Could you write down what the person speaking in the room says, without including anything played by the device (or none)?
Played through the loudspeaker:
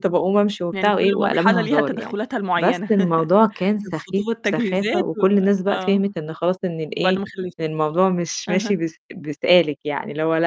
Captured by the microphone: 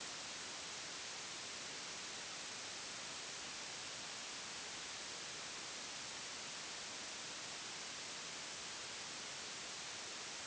none